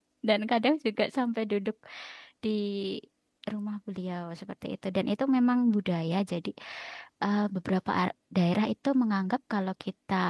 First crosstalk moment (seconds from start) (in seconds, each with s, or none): none